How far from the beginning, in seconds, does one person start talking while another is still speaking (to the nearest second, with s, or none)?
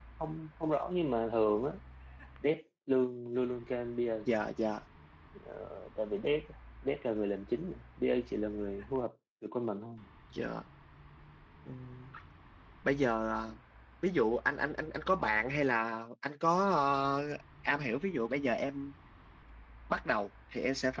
none